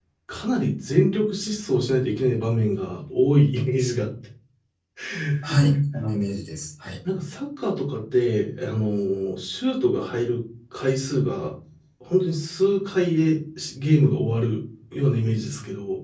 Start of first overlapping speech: none

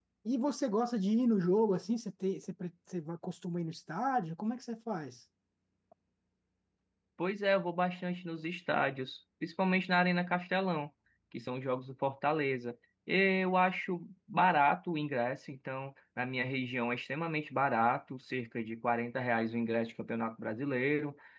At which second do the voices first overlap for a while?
none

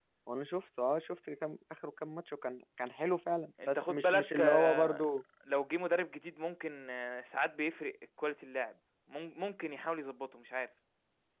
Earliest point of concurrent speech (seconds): 3.6 s

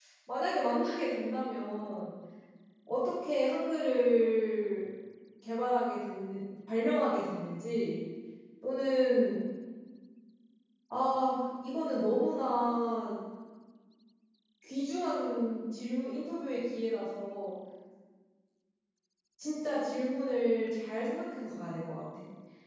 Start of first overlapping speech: none

